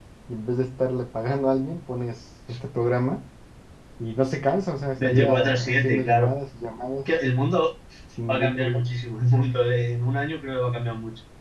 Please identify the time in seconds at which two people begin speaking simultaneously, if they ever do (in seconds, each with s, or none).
5.0 s